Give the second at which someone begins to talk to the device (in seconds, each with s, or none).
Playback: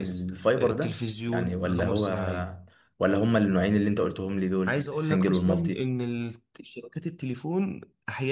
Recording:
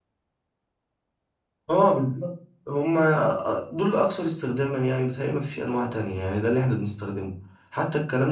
1.7 s